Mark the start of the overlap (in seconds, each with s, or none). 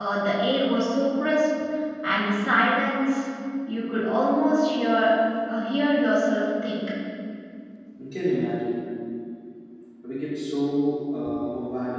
none